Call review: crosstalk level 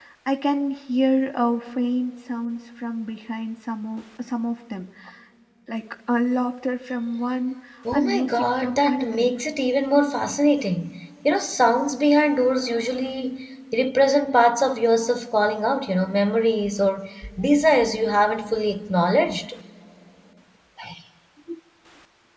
present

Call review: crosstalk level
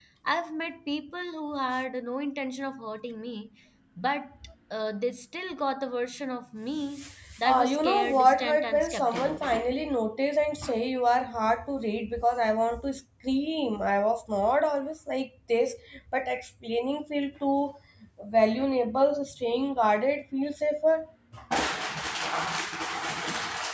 present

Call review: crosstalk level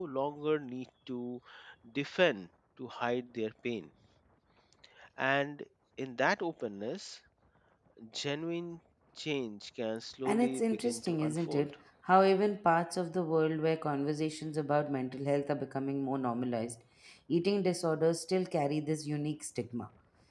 present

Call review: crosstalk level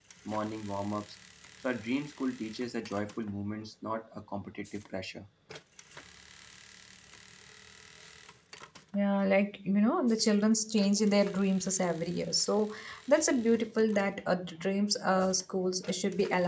none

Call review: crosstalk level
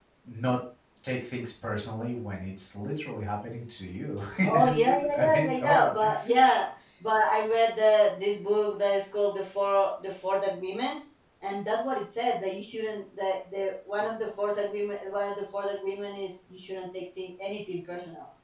present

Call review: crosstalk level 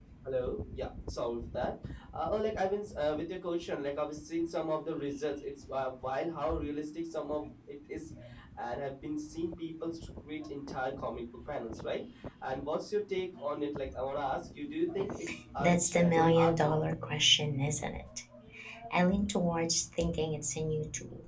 present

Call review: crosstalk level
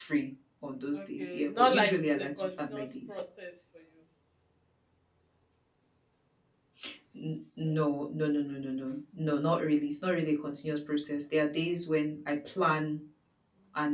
present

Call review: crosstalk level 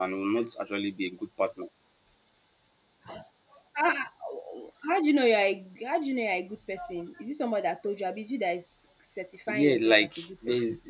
present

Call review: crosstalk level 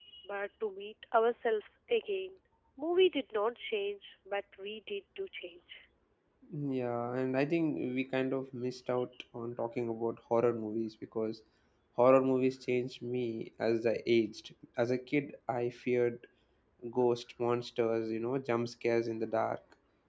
none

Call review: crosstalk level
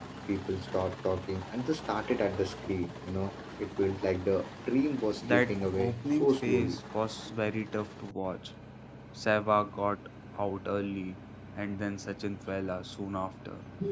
present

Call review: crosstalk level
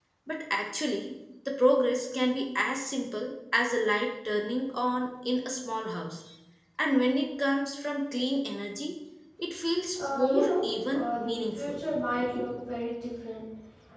present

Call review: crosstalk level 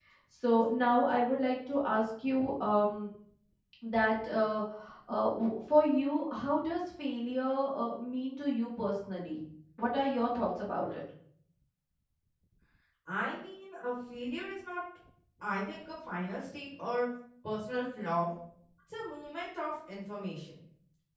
none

